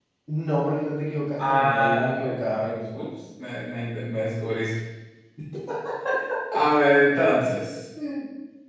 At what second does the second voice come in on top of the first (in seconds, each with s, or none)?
1.4 s